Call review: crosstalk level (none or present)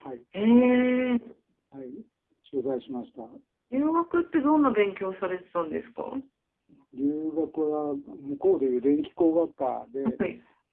none